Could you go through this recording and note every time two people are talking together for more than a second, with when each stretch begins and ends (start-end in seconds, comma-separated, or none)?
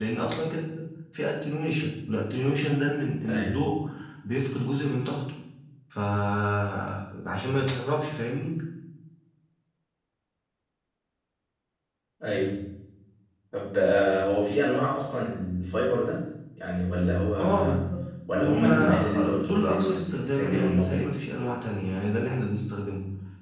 18.4-21.1